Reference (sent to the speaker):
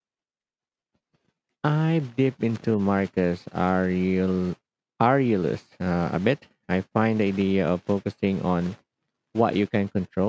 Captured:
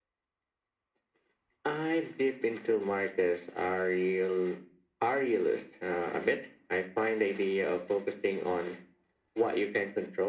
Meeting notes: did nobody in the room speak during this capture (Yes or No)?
Yes